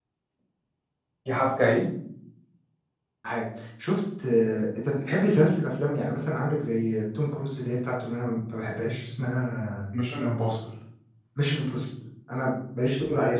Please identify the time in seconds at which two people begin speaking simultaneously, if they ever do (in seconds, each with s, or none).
none